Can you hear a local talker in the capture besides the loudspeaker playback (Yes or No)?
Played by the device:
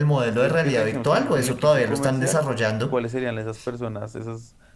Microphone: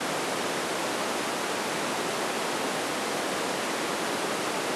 No